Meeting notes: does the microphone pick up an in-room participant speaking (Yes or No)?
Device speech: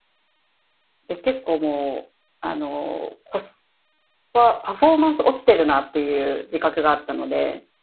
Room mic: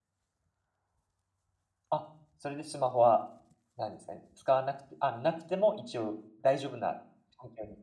Yes